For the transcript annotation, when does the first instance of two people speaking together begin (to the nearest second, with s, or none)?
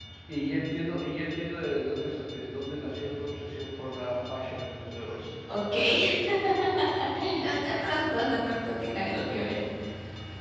none